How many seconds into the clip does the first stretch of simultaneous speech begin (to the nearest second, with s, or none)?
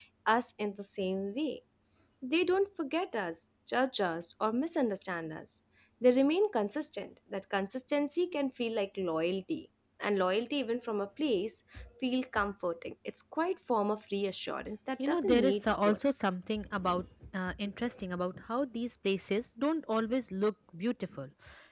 15 s